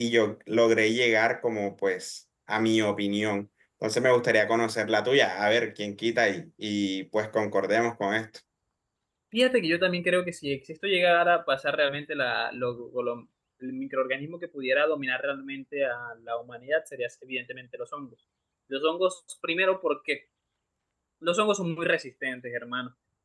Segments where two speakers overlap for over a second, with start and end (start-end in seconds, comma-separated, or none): none